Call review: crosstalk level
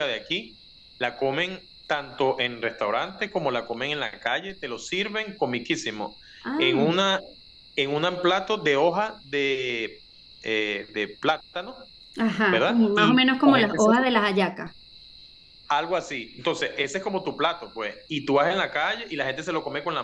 present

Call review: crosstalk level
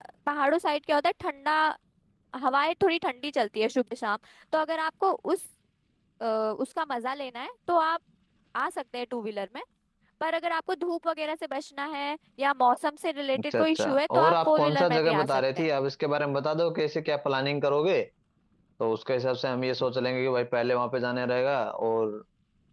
present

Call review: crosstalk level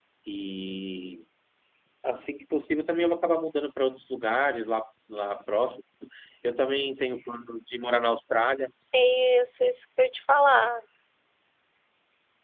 none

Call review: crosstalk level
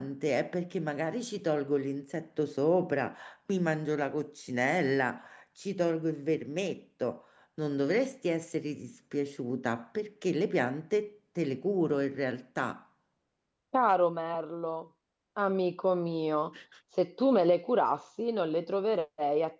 none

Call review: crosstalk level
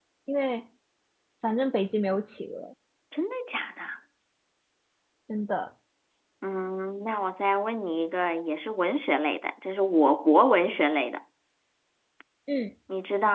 none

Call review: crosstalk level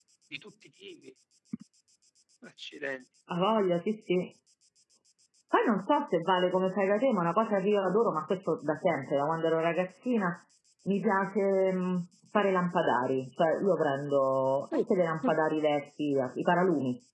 none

